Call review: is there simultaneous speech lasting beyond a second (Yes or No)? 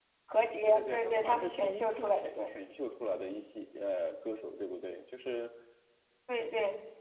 Yes